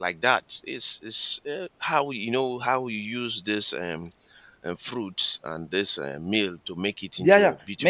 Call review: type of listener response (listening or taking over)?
taking over